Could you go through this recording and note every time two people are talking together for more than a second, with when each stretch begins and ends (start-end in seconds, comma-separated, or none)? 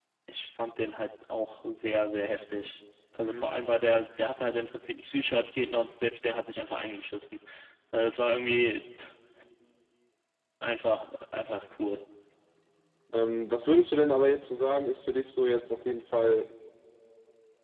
none